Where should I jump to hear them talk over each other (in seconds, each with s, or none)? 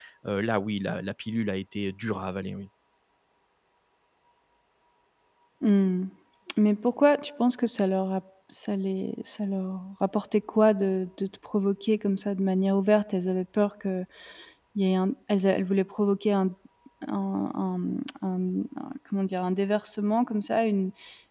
none